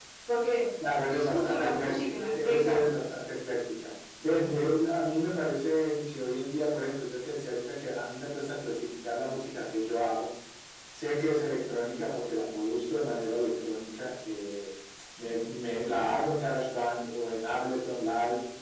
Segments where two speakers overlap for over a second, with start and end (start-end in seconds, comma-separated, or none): 1.1-2.8